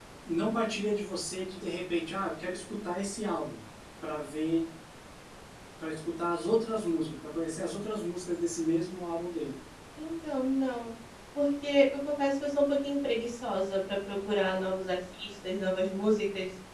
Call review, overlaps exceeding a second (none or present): none